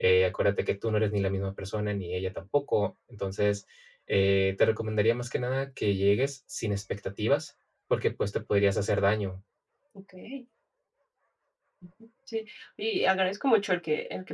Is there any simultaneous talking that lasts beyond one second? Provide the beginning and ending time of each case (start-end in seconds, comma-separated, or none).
none